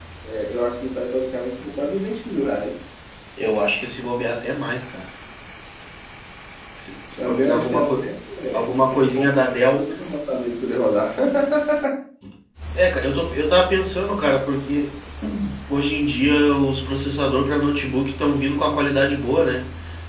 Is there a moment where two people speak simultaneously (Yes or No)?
Yes